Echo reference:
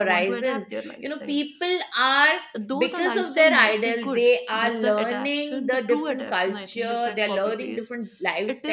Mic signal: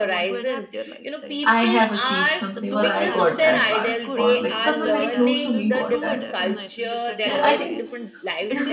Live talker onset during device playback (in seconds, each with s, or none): 1.4 s